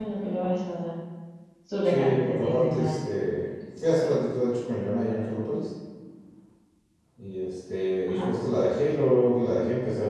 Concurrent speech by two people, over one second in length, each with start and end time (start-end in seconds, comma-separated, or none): 1.8-3.1